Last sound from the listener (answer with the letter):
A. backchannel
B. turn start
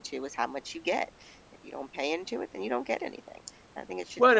B